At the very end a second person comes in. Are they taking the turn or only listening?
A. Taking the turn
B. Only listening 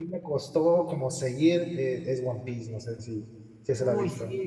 A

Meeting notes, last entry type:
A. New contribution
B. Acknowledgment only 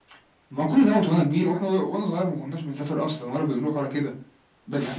B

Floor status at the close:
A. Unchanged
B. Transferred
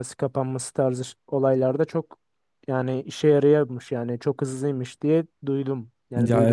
B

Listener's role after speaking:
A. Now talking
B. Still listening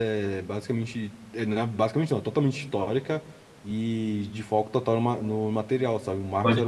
B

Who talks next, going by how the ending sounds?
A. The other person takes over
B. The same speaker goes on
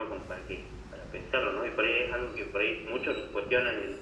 B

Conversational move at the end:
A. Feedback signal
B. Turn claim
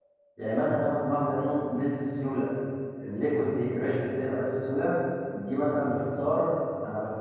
A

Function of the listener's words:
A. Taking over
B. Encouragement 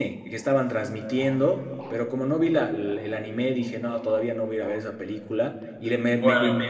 B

